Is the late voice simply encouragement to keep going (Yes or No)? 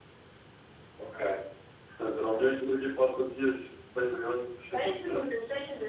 No